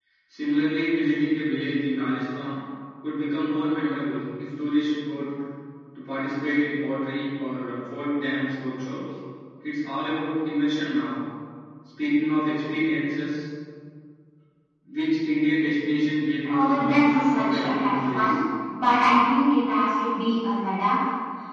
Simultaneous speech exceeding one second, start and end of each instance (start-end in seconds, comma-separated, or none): 16.4-18.2